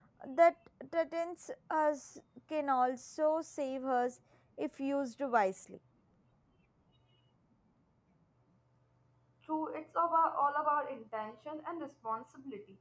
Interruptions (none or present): none